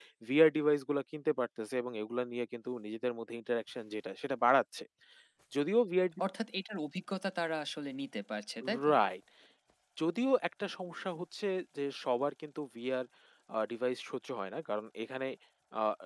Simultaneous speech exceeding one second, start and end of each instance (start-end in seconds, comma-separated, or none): none